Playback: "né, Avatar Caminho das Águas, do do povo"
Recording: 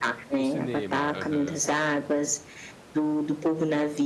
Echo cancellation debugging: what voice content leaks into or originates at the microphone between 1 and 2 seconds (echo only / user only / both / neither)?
both